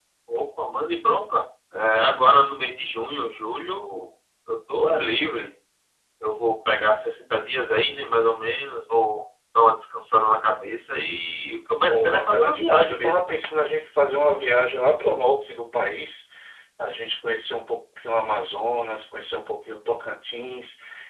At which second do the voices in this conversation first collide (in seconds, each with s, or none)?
11.9 s